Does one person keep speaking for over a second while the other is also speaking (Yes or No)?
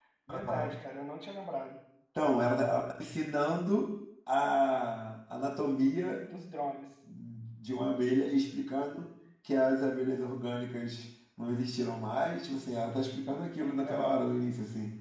No